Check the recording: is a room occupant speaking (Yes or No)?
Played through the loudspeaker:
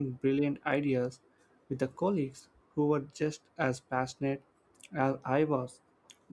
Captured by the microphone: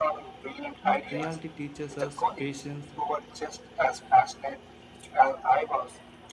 Yes